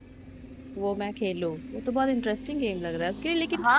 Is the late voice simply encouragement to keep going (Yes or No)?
No